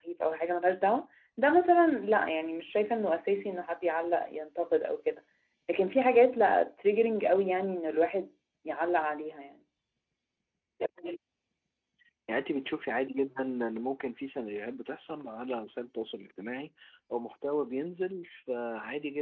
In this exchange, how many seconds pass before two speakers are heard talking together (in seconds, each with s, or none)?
none